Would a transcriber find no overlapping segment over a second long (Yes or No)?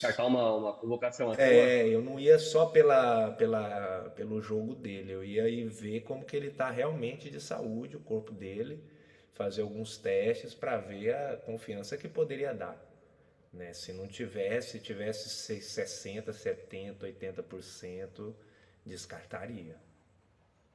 Yes